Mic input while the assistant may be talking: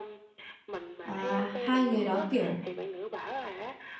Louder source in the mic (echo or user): user